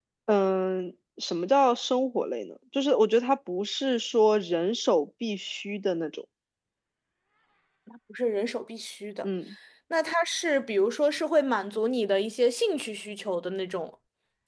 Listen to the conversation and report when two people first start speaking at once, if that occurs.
none

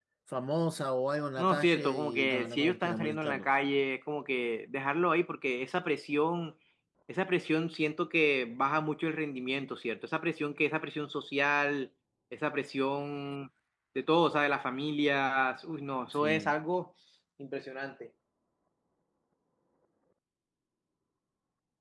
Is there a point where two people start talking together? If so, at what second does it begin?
1.4 s

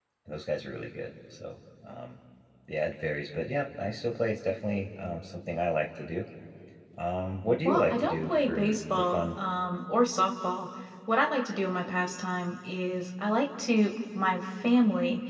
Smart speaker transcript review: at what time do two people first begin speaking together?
7.7 s

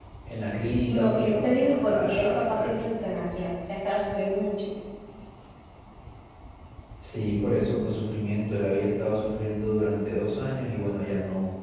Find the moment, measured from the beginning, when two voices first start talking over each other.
0.8 s

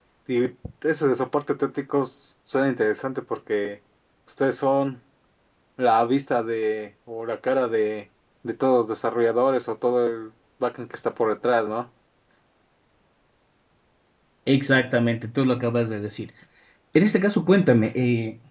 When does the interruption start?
none

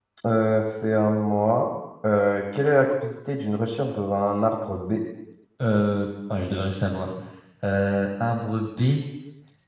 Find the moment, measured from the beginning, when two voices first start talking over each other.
none

